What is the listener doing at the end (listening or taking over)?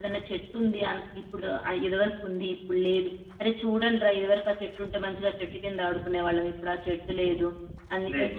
listening